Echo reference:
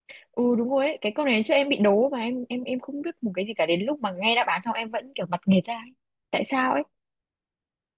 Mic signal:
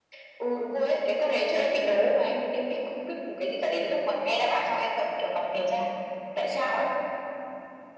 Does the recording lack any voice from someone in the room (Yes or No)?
Yes